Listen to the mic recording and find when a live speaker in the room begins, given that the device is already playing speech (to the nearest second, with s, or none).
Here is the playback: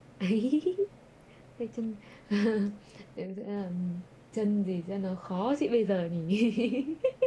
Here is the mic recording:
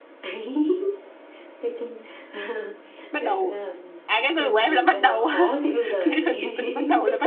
3 s